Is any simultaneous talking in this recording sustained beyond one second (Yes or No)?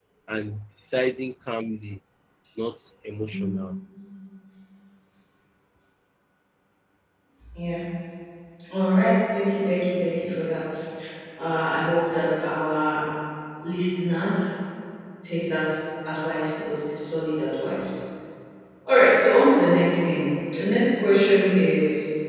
No